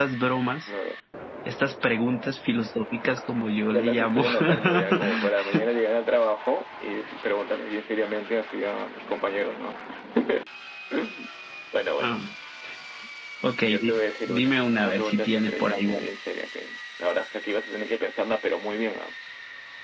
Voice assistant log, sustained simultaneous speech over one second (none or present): present